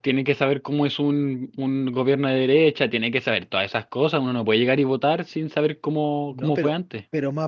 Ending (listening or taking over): taking over